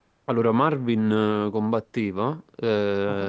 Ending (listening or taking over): listening